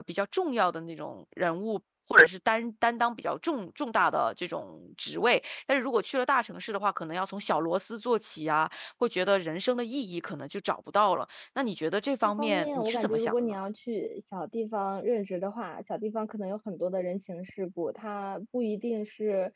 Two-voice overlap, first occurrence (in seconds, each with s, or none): 12.2 s